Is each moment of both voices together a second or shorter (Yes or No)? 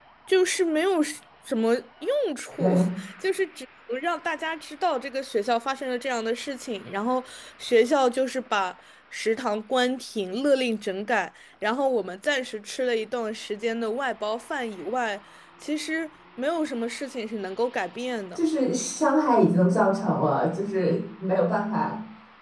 Yes